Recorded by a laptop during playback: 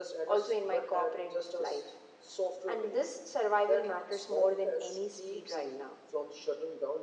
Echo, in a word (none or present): present